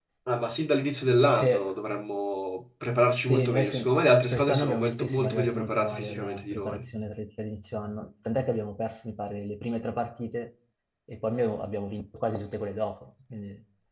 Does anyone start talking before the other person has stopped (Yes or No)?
Yes